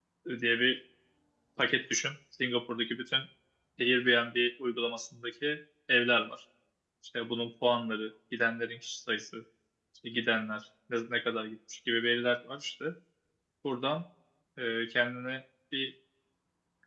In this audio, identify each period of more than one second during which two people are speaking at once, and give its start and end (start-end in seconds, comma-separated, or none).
none